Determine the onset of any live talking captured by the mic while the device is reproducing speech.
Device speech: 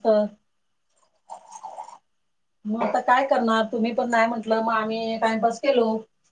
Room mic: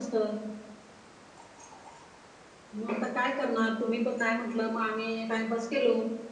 none

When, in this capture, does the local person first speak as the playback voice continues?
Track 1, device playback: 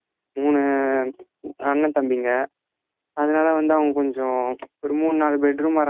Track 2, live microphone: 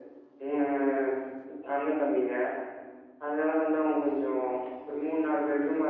none

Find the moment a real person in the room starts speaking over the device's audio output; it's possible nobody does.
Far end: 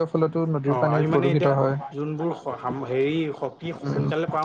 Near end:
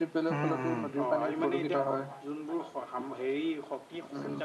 0.3 s

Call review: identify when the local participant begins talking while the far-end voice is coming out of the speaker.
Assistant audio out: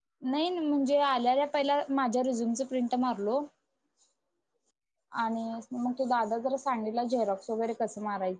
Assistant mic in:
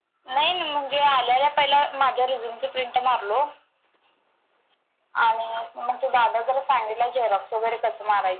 none

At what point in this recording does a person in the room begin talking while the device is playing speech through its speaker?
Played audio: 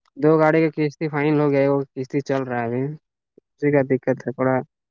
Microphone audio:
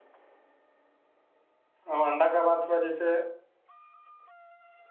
1.9 s

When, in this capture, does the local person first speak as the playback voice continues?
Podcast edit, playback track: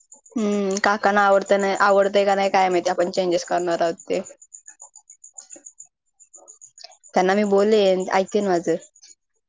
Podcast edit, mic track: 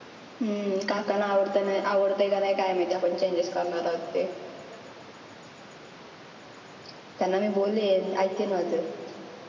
none

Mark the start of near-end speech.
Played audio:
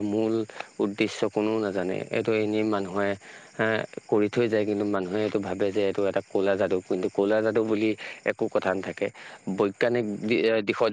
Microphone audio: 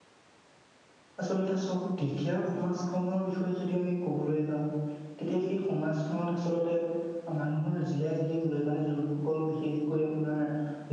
1.2 s

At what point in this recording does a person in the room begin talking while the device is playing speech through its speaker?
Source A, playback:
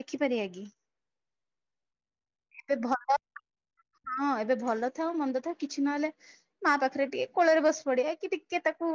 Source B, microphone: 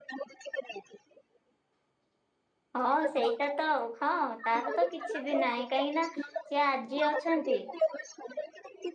2.8 s

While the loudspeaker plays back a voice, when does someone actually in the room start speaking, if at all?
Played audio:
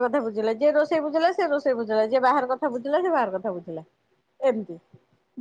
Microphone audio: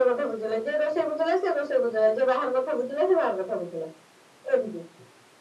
none

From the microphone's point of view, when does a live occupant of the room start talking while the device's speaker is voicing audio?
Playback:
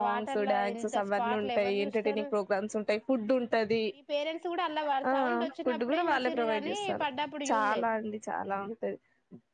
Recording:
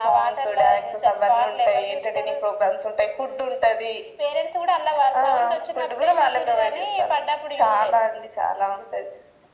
none

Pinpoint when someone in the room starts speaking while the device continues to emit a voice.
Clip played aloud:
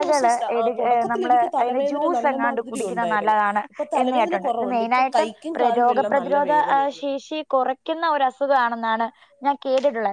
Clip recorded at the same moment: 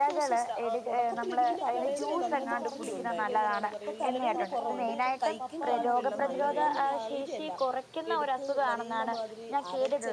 1.1 s

